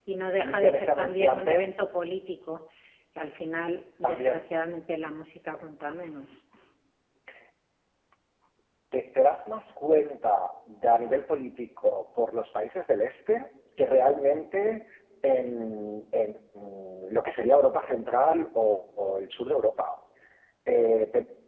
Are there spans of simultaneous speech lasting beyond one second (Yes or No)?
Yes